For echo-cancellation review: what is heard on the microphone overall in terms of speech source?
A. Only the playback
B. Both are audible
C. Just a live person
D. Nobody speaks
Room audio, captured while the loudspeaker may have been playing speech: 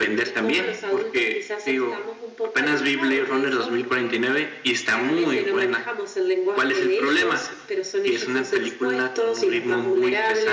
A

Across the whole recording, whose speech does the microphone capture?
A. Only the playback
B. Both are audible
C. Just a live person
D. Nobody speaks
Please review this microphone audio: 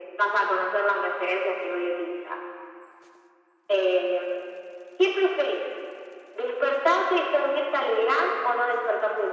A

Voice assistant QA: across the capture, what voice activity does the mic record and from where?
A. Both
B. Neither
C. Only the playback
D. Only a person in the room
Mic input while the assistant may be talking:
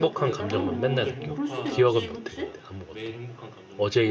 A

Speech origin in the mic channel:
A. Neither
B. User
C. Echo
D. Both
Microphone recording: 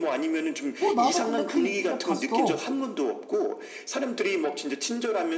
D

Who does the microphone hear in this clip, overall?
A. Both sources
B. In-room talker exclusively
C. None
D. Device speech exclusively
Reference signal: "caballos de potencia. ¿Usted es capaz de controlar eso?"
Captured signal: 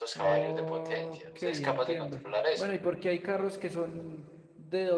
A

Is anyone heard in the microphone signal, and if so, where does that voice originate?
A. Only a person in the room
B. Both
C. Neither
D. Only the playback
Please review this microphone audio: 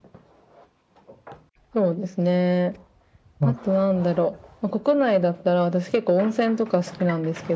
B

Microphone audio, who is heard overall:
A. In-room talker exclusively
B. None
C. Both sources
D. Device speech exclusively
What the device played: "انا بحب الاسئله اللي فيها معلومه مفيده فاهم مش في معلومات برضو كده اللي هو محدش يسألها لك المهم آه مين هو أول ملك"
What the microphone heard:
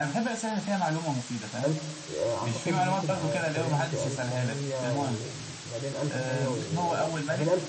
C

